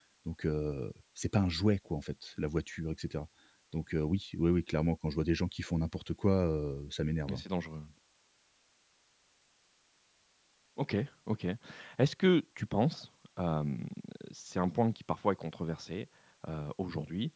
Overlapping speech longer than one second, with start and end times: none

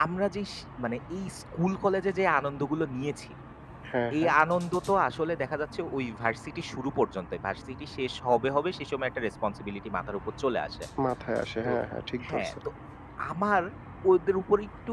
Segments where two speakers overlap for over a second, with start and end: none

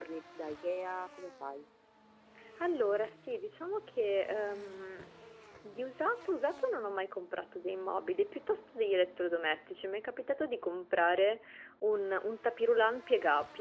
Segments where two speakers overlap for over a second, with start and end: none

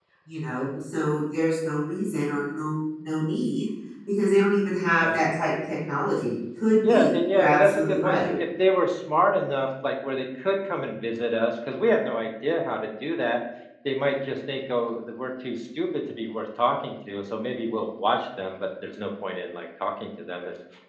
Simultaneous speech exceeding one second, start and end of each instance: 6.9-8.3

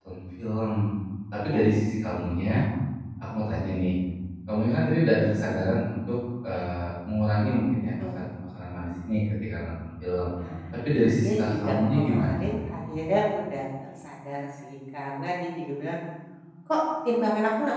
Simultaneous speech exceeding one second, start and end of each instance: 11.1-12.4

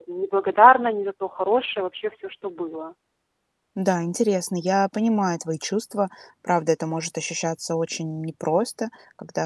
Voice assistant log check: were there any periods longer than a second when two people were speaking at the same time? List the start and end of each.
none

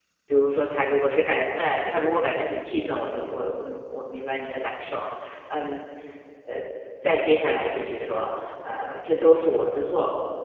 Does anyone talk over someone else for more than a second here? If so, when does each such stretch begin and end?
none

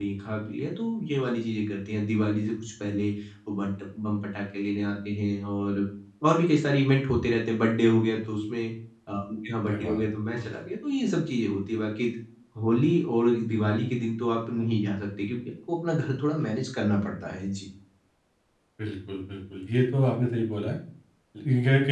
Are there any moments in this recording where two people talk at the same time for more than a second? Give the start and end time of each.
none

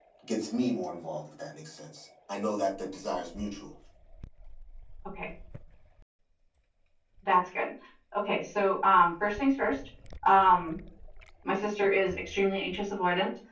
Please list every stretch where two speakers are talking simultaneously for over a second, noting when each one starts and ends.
none

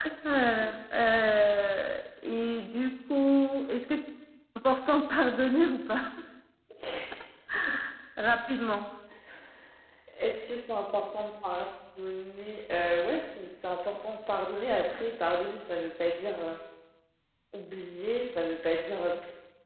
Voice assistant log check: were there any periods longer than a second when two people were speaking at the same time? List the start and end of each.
none

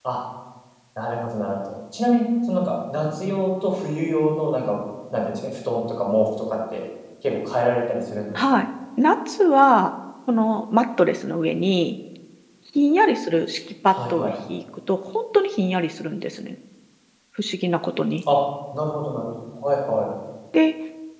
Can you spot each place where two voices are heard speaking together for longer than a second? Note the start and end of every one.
none

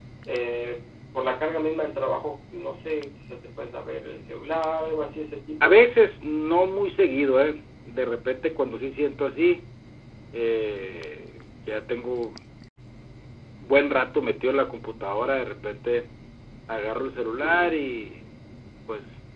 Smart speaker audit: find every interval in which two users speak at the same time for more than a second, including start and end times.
none

